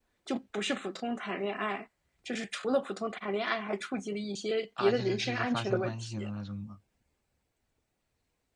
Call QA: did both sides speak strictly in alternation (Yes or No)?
No